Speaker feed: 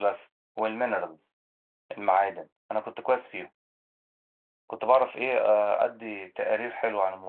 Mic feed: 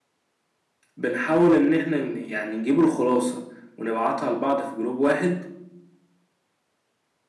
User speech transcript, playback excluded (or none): بنحاول ان احنا ن- يعني نجيب الخلاصة ونبعتها لبعض في جروب واحد